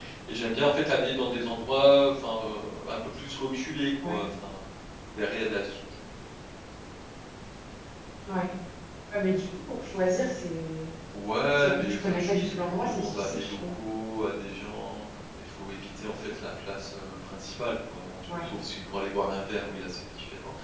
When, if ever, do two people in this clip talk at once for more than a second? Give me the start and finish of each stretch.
11.6-13.8

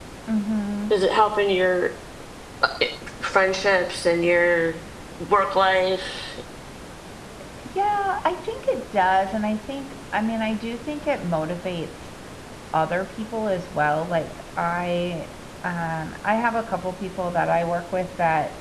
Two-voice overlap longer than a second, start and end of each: none

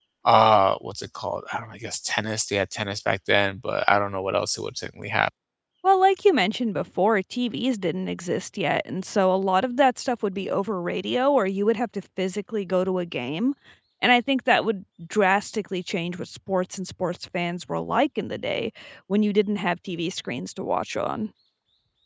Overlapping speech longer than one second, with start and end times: none

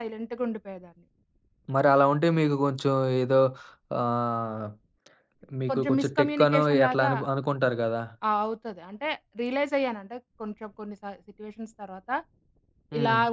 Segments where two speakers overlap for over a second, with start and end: 5.7-7.1

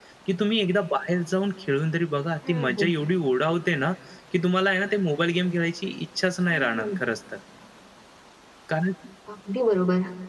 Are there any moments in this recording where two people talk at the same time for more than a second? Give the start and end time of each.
none

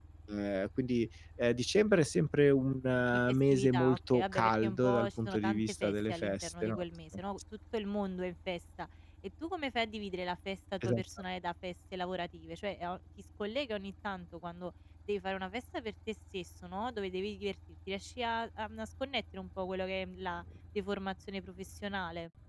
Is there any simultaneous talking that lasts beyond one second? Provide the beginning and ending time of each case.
3.3-6.8

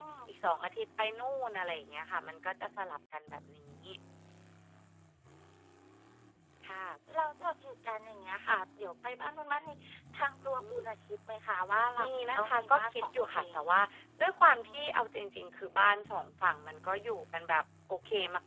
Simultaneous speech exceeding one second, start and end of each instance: 12.0-13.6

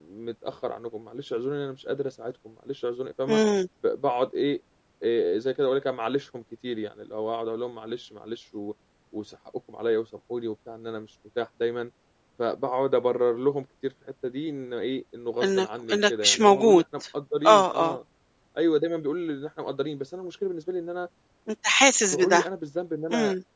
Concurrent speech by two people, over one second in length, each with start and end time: 15.4-16.8

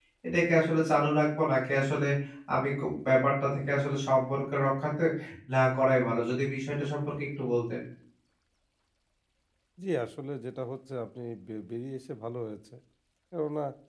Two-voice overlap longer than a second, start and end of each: none

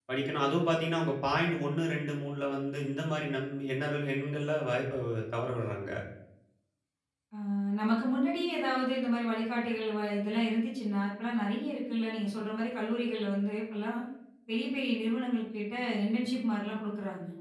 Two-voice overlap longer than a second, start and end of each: none

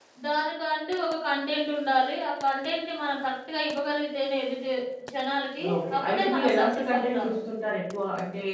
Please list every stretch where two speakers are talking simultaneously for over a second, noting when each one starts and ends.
5.8-7.4

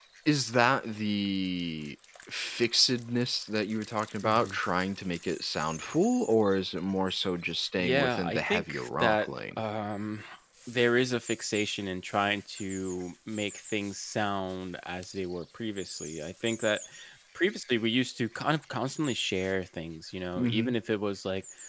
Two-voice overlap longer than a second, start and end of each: 7.8-9.6

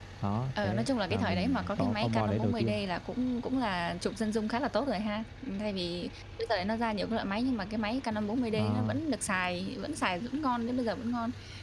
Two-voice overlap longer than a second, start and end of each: 0.6-2.8

